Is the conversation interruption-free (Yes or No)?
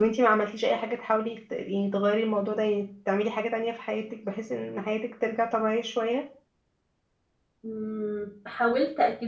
Yes